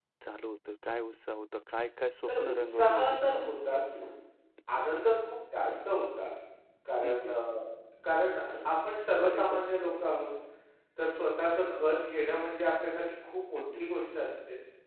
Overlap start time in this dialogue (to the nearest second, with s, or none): 2 s